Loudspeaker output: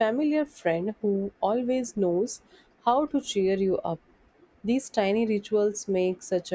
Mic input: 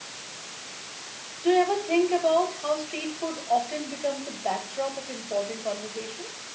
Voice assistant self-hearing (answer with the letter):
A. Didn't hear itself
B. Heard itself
A